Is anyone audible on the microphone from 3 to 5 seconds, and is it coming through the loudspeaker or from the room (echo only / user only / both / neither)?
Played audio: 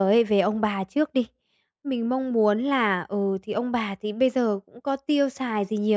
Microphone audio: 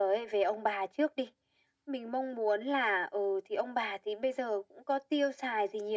echo only